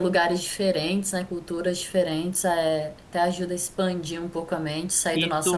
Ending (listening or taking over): taking over